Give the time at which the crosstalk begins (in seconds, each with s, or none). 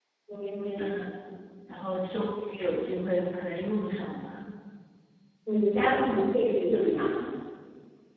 none